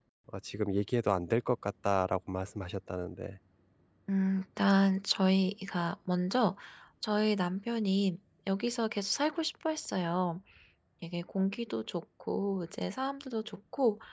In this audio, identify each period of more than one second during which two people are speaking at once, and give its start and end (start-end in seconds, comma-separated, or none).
none